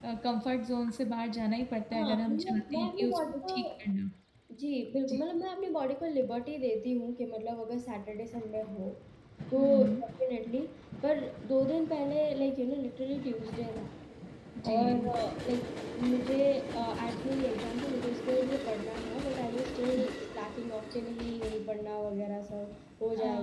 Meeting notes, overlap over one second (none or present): present